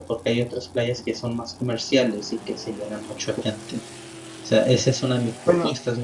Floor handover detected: No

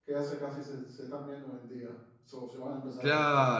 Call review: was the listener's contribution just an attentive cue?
No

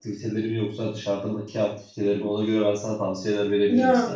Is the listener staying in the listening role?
No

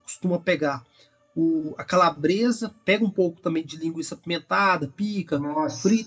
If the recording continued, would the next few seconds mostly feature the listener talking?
No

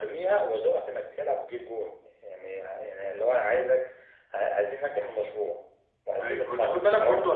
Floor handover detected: Yes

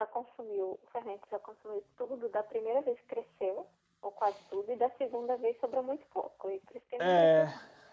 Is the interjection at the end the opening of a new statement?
Yes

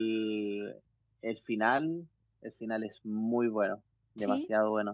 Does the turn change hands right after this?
Yes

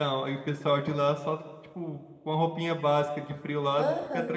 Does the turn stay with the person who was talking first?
No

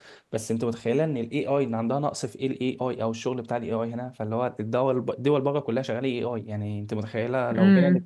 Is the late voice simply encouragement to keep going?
Yes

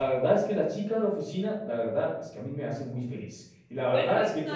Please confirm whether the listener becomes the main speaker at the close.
Yes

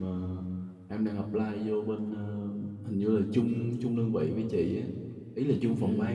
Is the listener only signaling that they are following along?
No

